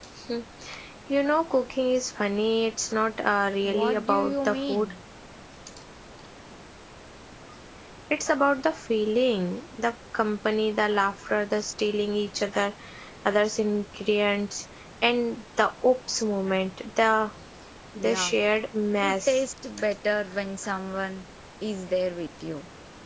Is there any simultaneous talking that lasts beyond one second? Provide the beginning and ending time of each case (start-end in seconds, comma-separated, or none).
3.6-4.9